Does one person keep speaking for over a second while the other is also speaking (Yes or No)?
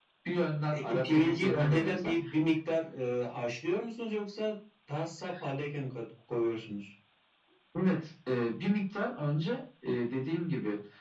Yes